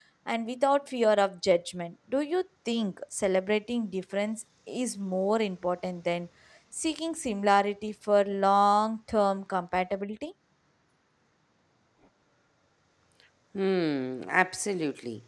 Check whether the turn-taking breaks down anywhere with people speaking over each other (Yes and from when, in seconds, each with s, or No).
No